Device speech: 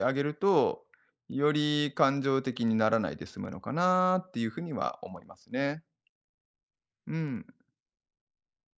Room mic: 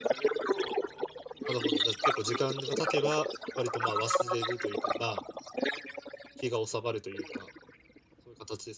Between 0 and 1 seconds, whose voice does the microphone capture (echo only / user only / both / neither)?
echo only